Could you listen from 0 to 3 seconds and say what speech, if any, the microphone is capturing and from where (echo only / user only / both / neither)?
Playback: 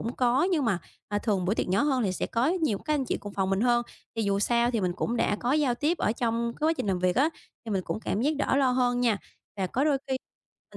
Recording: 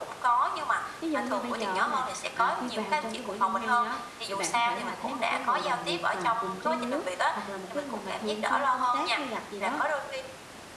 both